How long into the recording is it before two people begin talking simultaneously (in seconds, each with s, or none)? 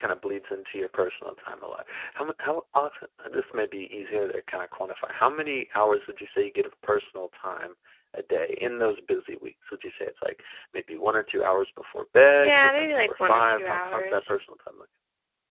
12.4 s